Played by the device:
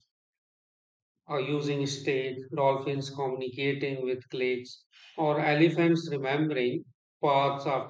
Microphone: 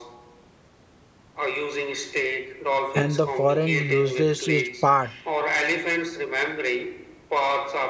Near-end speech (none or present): present